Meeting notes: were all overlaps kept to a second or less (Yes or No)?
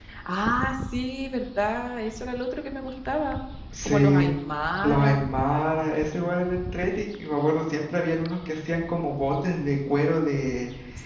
Yes